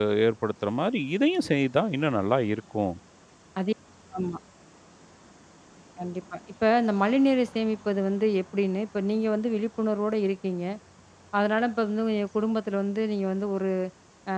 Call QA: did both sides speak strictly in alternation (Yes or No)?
Yes